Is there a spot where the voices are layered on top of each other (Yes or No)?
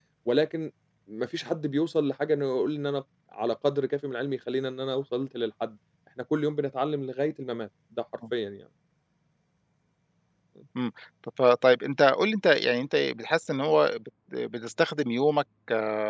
No